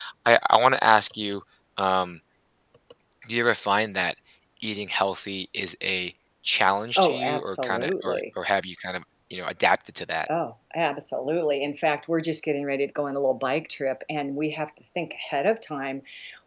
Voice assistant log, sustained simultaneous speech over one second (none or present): present